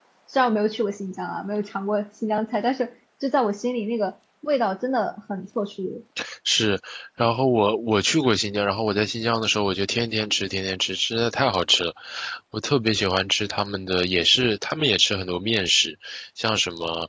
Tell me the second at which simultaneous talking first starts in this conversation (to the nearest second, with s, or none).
none